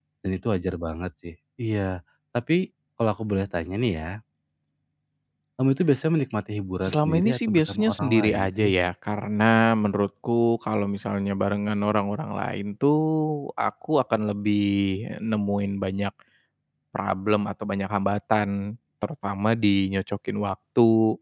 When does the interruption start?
6.8 s

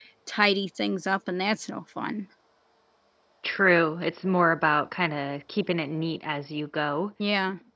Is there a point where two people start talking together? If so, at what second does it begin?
none

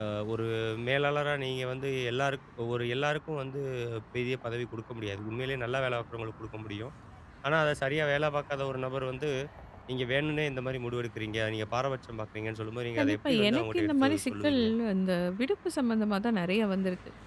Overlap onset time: 13.0 s

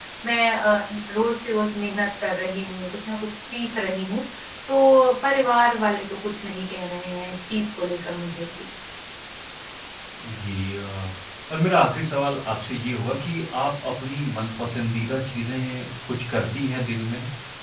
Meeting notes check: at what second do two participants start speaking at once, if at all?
none

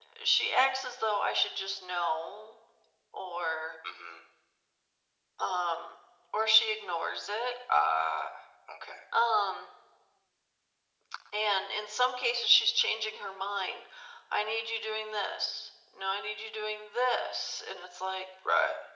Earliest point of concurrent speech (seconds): none

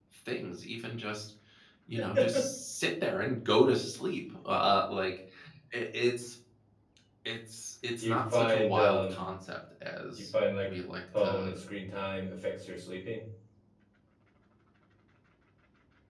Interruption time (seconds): 8.0 s

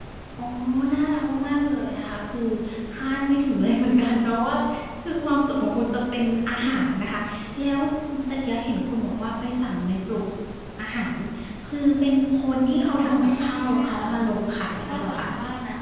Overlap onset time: 12.8 s

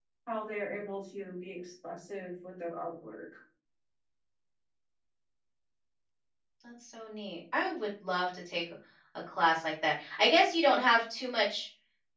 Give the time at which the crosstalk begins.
none

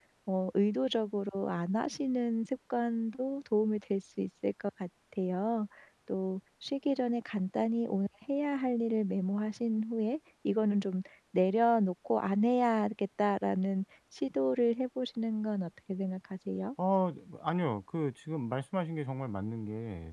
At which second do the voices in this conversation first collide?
none

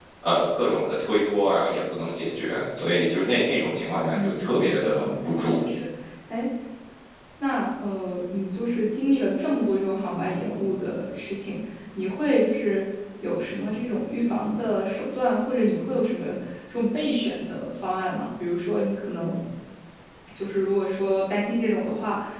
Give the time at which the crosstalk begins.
4.1 s

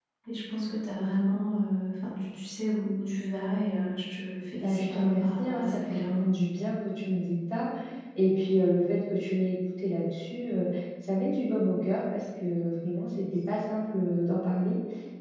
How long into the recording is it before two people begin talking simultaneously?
4.6 s

